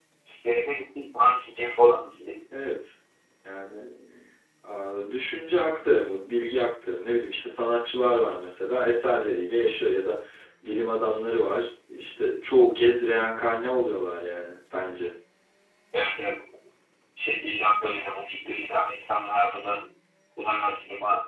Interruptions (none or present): none